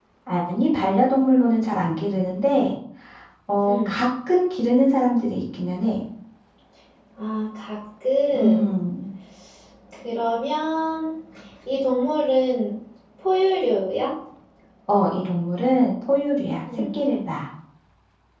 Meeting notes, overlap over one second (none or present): none